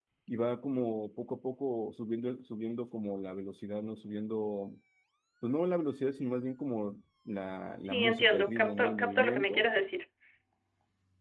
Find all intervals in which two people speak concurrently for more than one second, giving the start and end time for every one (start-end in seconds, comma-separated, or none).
7.8-9.7